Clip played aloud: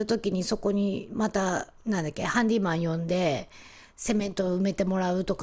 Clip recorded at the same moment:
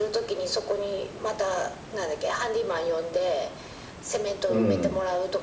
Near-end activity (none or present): present